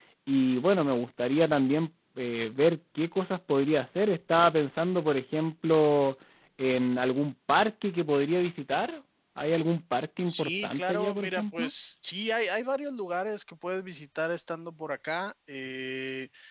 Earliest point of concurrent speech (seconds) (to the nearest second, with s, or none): 10 s